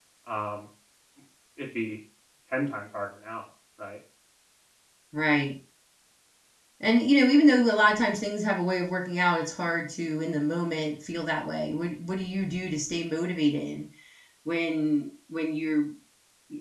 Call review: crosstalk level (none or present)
none